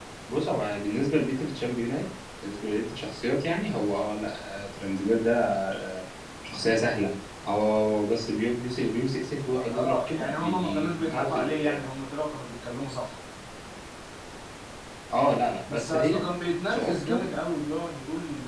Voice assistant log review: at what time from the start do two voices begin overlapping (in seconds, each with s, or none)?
9.7 s